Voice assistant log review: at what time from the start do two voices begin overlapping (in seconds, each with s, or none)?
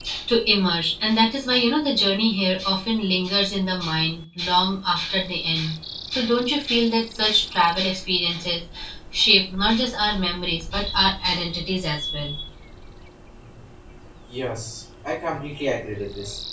none